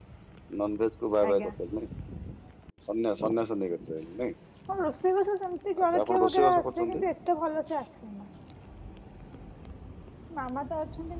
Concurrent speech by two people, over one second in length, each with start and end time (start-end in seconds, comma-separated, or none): 5.8-7.0